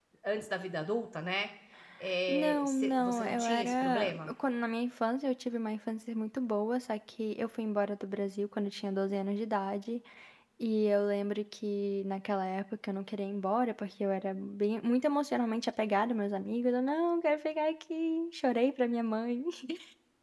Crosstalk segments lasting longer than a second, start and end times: 2.3-4.3

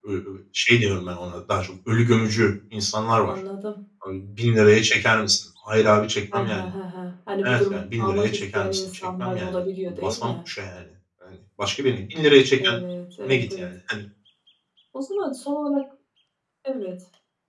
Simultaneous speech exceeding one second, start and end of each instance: 7.4-10.3

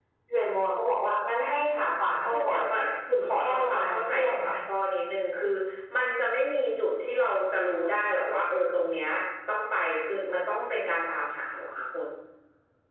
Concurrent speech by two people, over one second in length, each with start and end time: 3.2-4.5

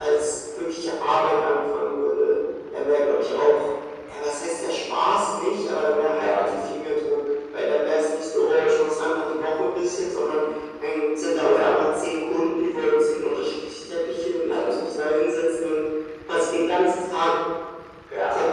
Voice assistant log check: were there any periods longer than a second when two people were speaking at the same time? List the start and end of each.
none

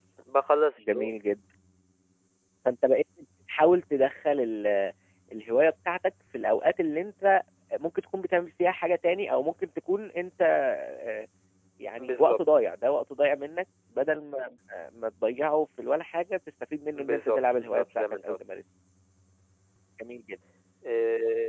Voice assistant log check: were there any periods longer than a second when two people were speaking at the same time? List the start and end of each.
16.9-18.3

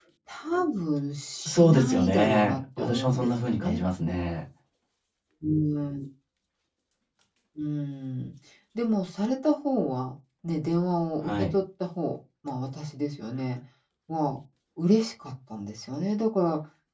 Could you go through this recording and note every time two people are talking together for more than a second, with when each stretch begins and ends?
1.5-3.8

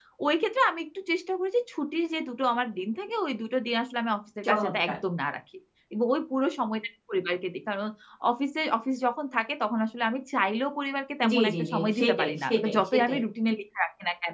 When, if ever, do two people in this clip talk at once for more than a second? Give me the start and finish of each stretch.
11.3-13.2

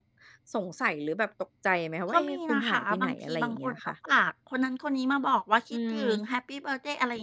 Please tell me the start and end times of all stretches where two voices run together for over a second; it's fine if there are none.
2.1-3.9

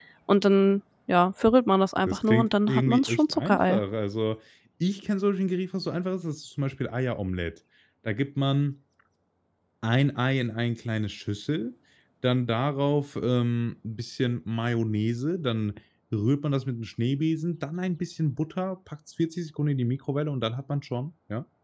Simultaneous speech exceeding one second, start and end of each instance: 2.1-3.8

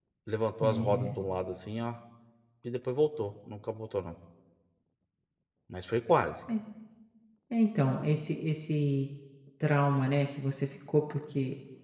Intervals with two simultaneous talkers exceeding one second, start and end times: none

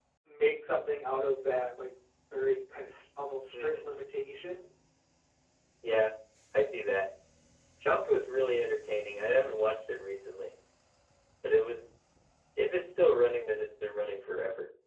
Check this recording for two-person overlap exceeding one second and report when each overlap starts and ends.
none

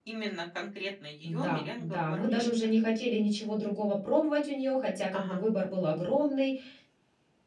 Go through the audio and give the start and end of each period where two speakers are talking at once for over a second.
1.2-2.7

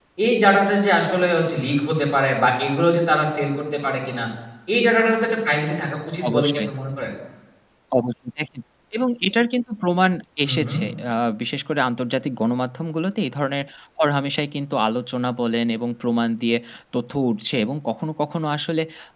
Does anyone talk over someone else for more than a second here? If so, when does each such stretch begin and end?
none

